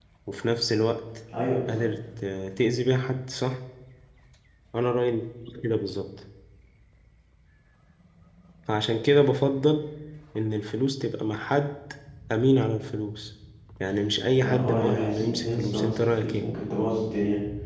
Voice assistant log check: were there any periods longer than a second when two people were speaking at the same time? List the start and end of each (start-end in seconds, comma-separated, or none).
14.4-16.5